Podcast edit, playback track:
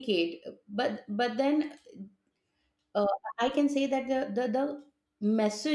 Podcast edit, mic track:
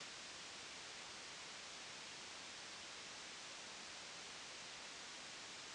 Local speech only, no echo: none

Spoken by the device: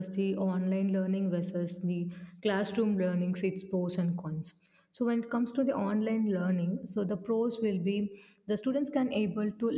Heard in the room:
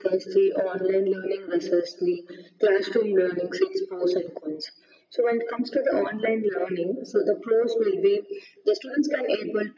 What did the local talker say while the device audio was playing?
none

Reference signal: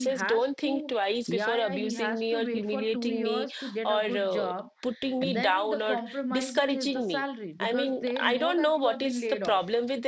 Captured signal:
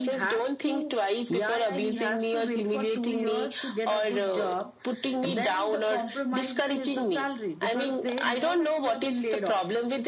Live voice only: none

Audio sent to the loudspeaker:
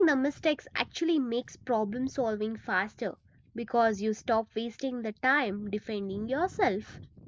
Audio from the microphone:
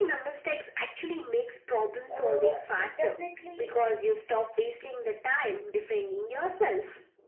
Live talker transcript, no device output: uh, it definitely

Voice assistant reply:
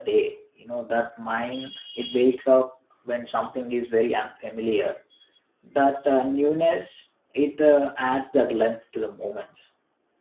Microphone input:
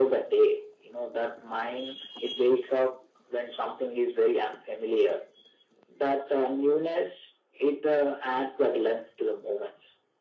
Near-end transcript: none

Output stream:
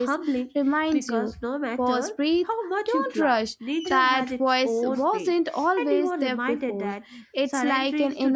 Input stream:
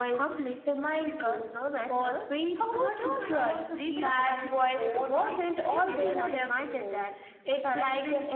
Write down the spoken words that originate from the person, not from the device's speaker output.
those moments also teach gratitude because you realize

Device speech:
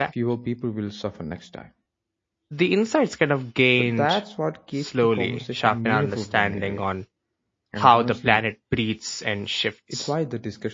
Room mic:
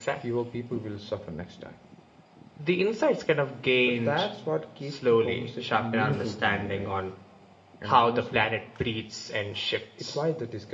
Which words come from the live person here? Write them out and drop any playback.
none

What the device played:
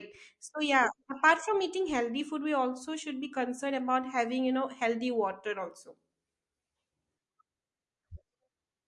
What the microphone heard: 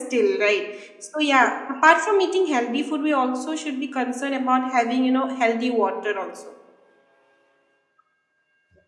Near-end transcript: none

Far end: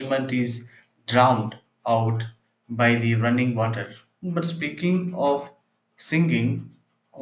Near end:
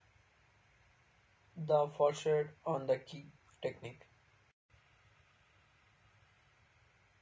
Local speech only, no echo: The foresight on the key technique,

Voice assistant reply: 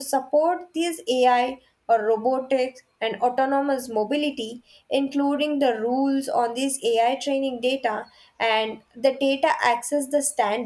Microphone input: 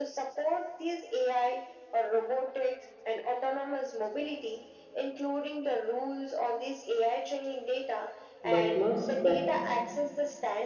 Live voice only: but must balance

